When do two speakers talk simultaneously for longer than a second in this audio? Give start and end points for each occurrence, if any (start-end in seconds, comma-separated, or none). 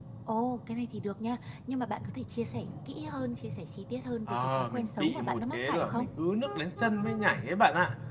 4.3-6.0